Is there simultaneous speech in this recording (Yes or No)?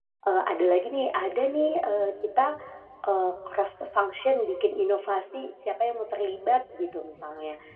No